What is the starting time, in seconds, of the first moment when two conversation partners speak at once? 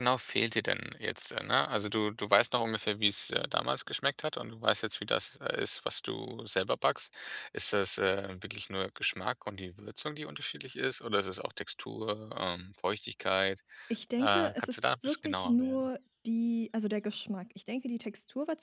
14.2 s

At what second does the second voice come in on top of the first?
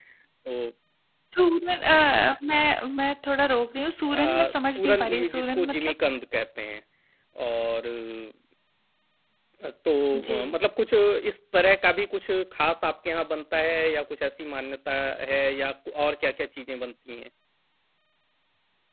4.2 s

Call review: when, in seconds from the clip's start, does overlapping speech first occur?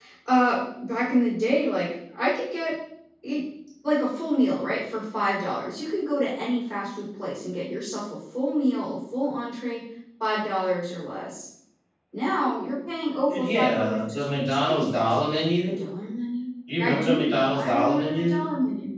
13.3 s

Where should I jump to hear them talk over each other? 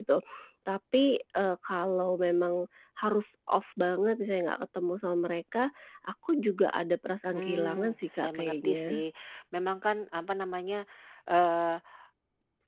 7.3 s

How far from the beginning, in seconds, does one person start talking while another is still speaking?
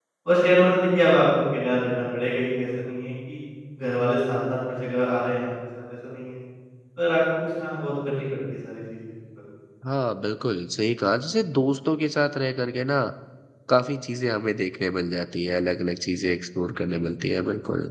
none

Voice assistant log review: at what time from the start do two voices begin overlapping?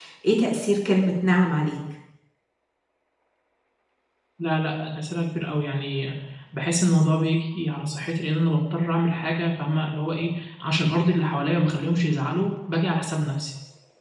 none

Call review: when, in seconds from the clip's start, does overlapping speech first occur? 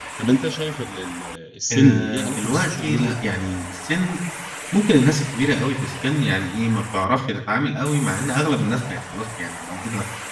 1.7 s

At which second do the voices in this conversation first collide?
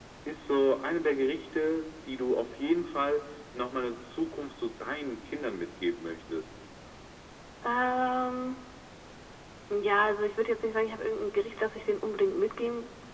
none

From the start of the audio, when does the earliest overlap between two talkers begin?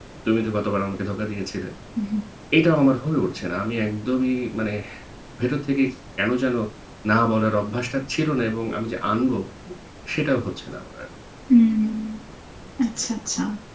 none

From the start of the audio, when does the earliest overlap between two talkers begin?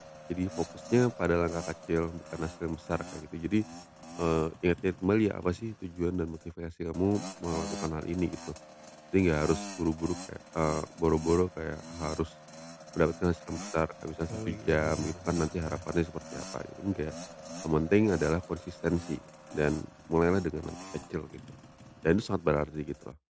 14.3 s

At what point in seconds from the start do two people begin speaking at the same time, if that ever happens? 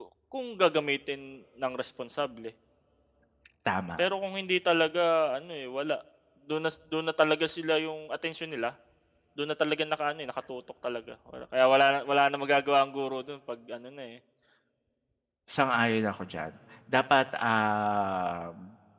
none

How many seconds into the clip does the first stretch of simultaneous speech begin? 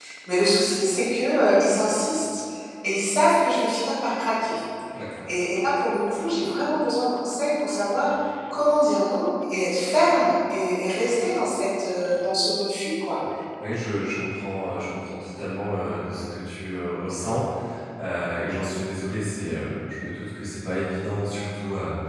none

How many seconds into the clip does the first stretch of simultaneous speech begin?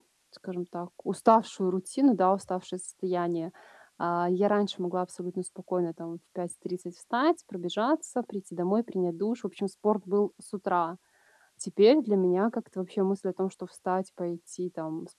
none

